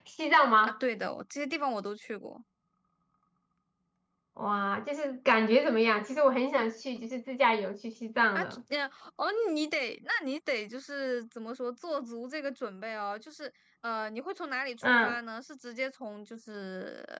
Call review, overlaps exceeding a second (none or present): none